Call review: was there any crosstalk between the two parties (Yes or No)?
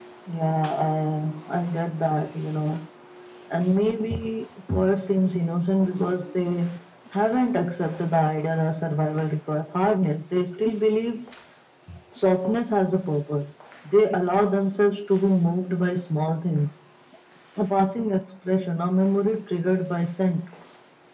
No